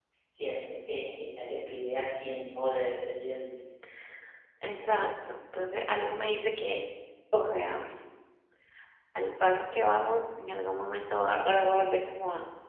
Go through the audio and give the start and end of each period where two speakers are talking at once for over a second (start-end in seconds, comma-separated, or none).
none